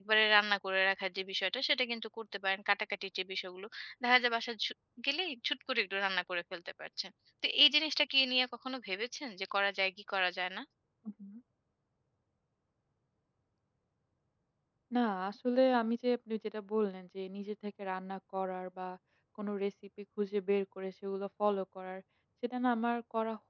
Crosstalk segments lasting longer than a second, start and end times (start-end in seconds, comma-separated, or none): none